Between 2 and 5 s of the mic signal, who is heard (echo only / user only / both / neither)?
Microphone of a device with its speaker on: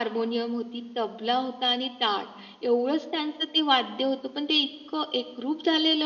echo only